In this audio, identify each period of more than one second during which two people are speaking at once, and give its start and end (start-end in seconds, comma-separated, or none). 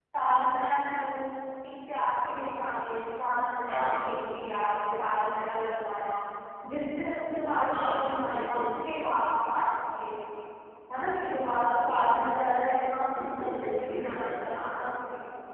13.2-14.4